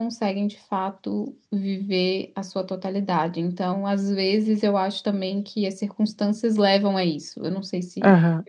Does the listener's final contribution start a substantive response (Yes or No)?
Yes